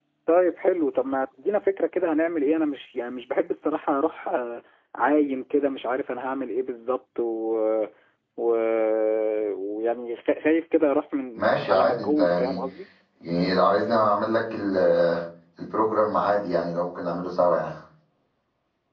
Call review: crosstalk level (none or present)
present